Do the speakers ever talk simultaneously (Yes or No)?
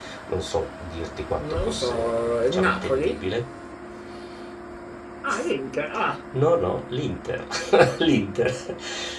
Yes